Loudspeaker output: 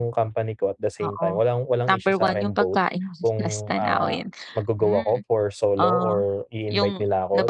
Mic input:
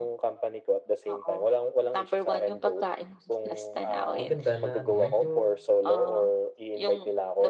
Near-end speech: present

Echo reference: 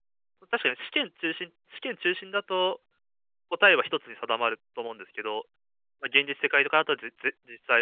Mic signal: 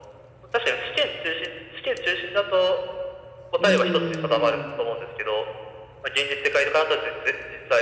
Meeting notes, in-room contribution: present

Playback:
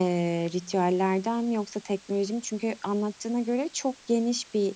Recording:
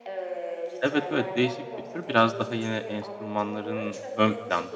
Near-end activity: present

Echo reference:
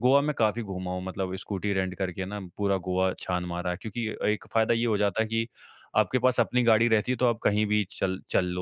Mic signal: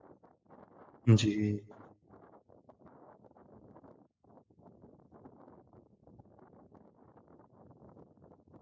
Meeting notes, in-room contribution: present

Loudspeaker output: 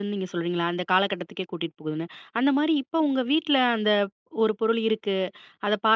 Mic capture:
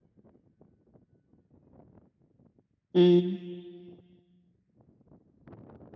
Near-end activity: present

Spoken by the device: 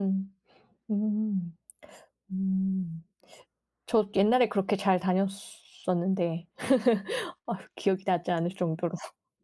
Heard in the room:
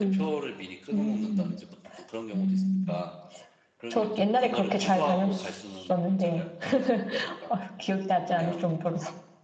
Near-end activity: present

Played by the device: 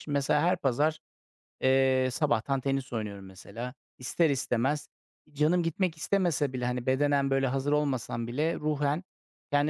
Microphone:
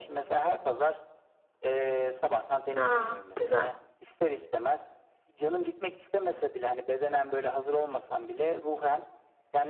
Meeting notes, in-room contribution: present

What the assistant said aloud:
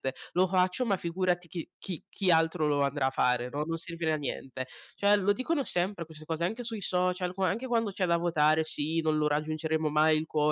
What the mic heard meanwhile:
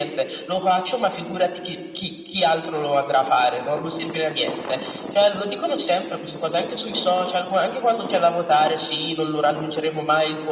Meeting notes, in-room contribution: none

